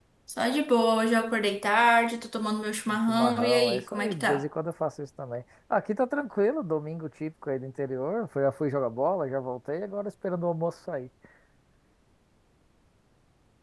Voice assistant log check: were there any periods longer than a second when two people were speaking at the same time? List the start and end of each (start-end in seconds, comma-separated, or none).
2.9-4.4